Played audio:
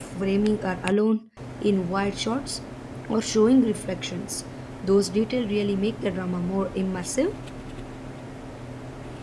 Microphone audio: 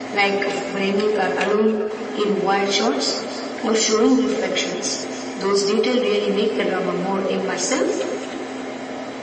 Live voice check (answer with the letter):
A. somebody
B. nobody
B